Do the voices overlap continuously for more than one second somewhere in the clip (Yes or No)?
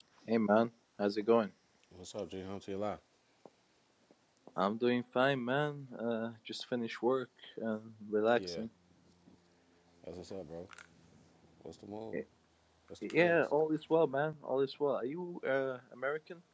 No